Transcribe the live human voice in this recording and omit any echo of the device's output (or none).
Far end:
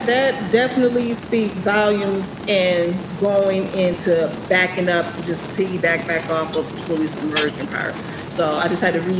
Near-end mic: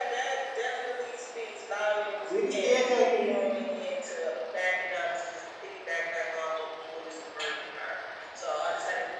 We still can't hear you.